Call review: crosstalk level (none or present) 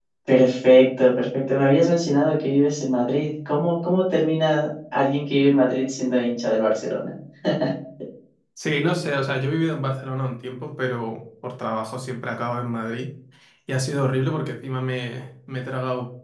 none